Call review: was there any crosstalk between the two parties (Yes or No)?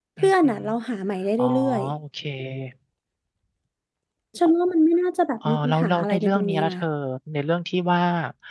Yes